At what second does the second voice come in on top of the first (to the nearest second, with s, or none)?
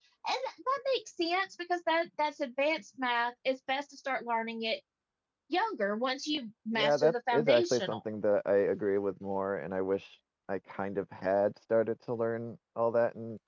7 s